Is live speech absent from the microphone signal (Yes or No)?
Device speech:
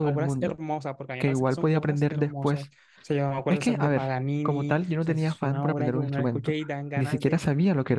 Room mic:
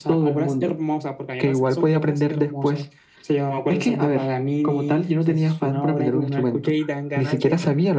Yes